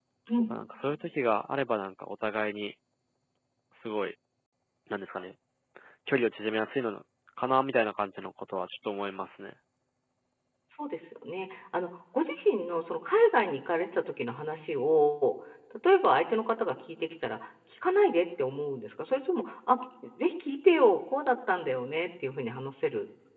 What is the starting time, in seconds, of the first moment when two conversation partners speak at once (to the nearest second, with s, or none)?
none